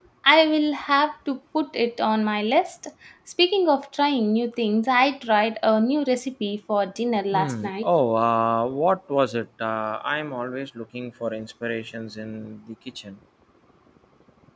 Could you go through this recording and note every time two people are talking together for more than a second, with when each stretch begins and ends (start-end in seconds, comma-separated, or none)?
none